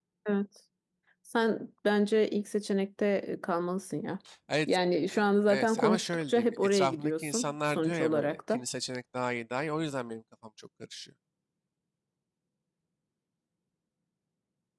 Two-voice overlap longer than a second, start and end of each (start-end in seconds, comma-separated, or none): 5.2-8.6